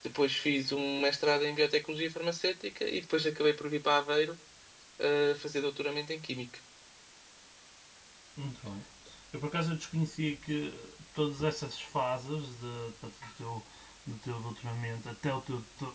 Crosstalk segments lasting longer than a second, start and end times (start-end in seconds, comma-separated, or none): none